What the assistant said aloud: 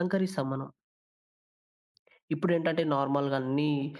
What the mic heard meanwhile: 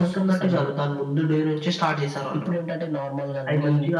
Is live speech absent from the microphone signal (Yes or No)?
No